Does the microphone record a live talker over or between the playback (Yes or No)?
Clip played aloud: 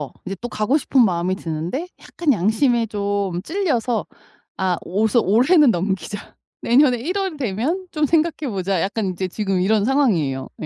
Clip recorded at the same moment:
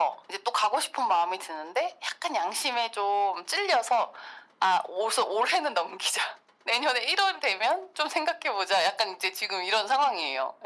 No